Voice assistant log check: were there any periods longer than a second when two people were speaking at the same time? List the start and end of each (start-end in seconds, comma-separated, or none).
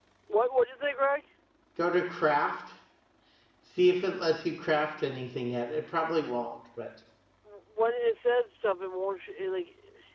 none